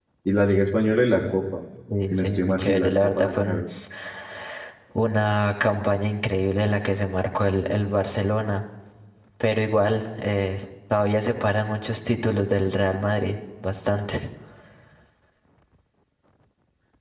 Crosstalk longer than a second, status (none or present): present